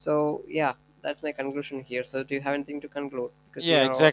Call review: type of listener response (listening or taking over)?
taking over